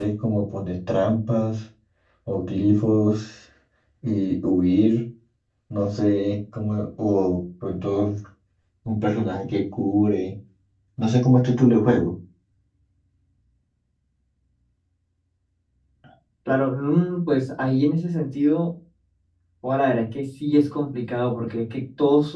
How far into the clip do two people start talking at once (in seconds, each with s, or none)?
none